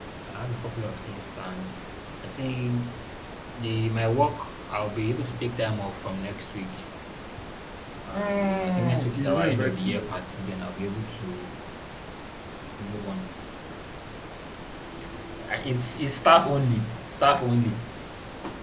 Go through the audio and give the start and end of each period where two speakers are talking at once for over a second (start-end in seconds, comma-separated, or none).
8.1-10.1